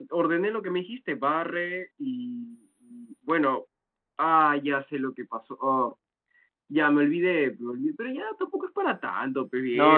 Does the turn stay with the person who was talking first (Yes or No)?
No